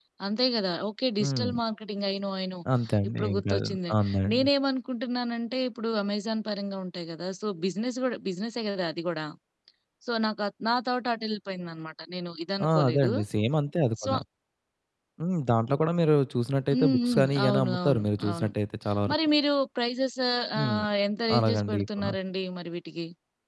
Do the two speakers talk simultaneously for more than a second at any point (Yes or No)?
Yes